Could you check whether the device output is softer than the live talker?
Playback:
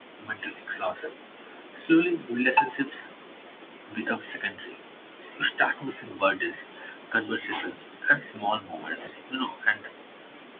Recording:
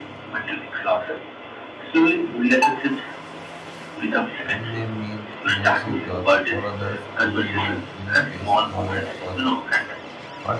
No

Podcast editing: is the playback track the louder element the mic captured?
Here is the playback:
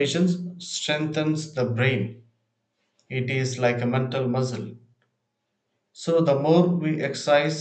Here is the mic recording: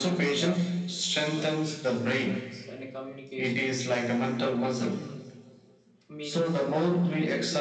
Yes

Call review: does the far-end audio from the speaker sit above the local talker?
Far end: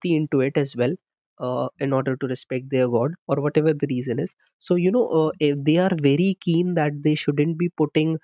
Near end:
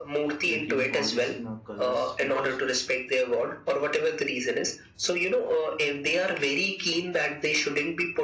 Yes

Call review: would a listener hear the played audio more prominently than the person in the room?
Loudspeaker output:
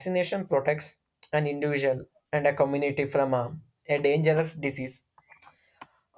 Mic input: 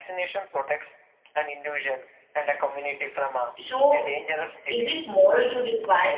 No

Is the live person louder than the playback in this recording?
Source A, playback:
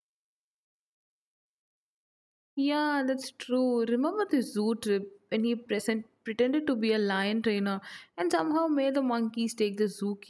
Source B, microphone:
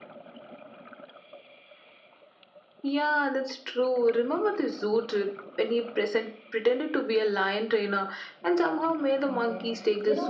No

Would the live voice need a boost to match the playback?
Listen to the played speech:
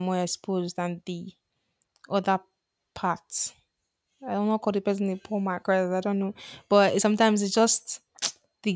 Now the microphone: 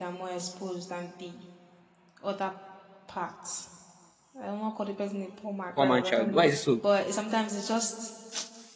No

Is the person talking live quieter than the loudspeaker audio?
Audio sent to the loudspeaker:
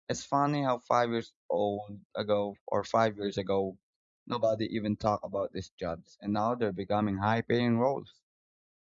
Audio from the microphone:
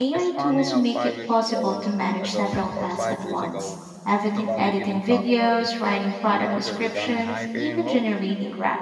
No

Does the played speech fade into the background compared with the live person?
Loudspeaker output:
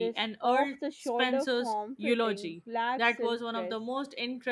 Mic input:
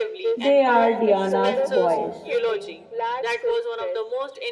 Yes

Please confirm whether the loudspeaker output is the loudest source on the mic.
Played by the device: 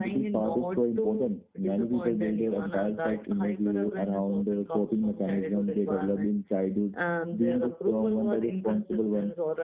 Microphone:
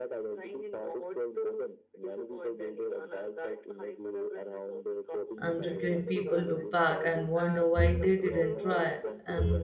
No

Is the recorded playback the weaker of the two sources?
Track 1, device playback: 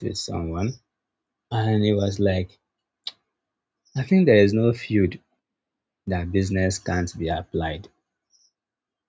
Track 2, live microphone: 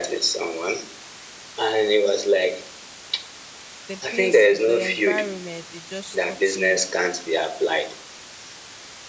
No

